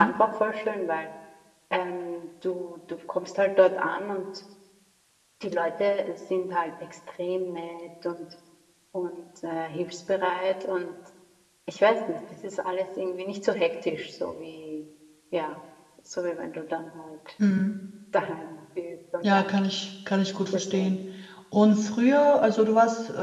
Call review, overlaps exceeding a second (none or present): none